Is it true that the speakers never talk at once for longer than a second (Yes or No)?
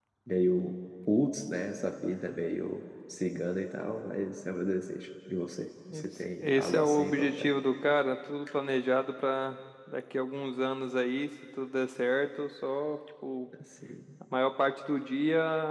No